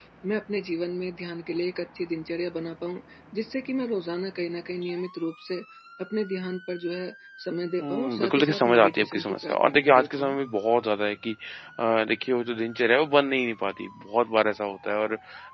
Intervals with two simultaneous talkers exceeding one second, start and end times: 7.8-10.4

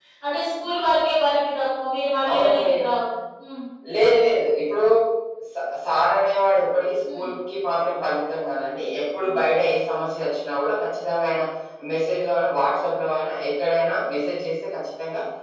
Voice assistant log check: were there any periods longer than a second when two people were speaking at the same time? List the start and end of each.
none

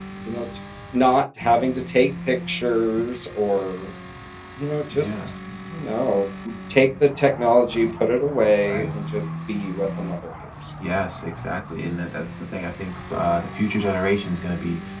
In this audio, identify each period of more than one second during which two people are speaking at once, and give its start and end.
none

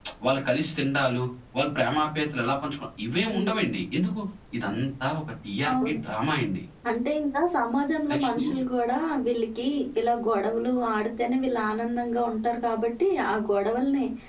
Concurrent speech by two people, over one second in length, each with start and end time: none

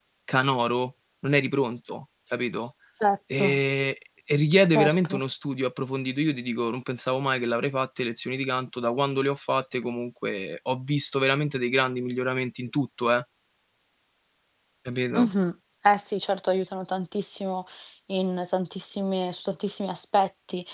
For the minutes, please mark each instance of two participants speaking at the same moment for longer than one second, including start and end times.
none

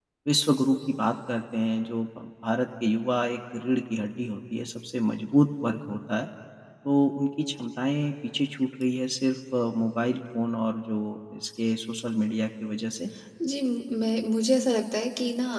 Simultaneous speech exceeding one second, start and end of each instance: none

